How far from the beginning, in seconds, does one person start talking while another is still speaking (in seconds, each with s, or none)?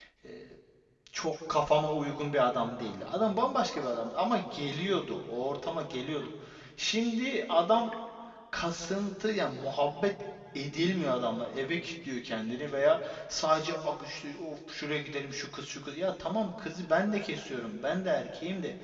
none